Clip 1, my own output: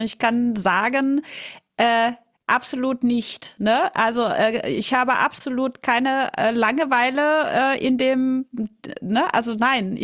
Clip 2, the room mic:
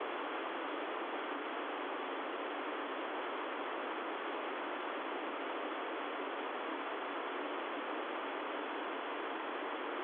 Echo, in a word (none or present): none